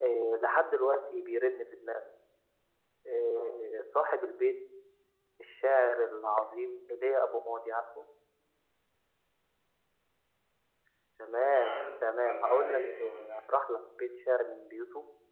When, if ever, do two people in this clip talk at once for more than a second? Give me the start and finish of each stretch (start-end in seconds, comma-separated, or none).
11.4-13.3